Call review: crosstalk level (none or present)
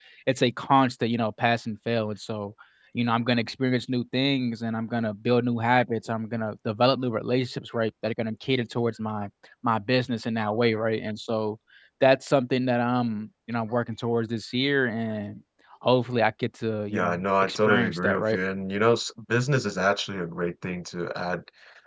present